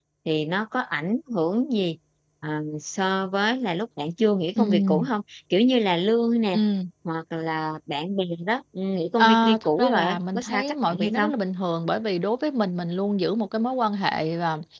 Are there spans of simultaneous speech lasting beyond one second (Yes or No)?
Yes